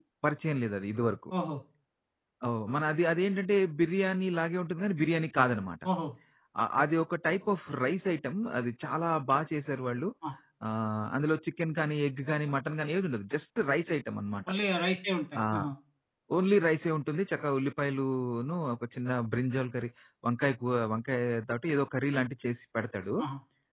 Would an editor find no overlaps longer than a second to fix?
Yes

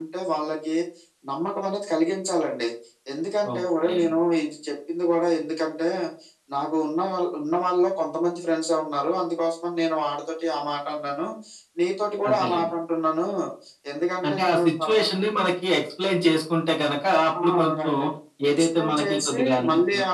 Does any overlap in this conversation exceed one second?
Yes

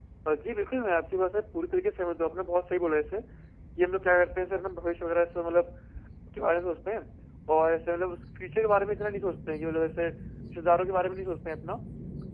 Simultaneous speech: No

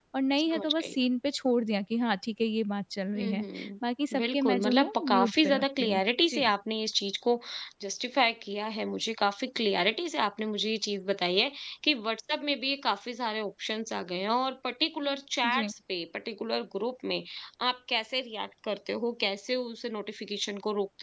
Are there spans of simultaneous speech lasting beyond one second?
Yes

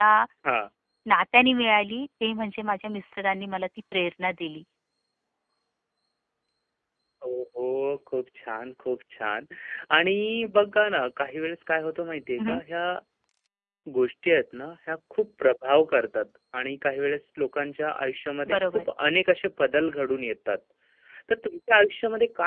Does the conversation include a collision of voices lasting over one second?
No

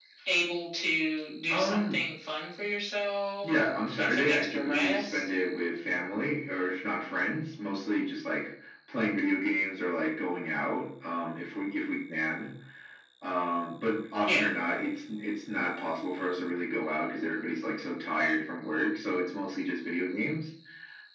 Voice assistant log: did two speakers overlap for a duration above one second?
Yes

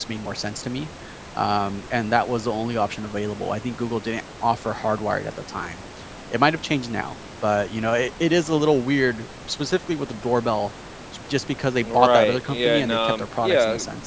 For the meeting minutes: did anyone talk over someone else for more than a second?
Yes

